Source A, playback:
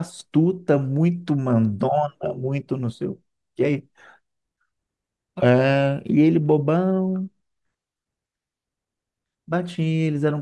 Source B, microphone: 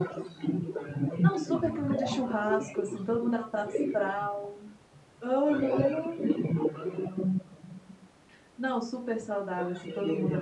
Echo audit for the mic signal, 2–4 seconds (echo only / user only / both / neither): both